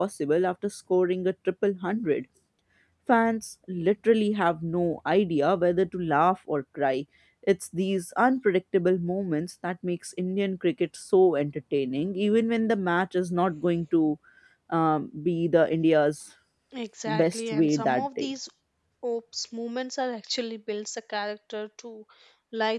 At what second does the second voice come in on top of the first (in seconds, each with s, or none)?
17.1 s